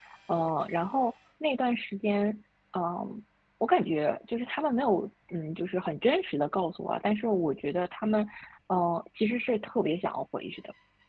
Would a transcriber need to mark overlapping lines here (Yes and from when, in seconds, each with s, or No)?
No